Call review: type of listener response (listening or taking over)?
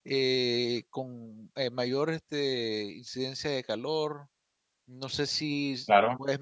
listening